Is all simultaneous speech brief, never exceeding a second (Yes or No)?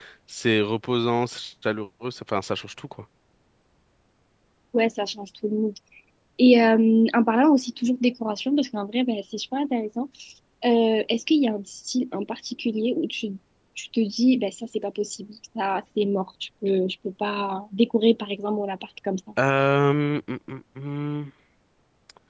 Yes